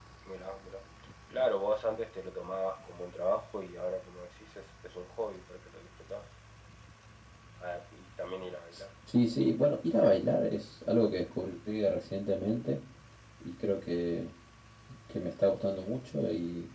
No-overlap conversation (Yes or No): Yes